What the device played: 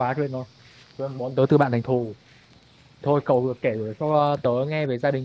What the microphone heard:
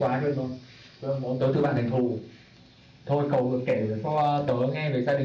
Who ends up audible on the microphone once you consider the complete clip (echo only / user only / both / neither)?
echo only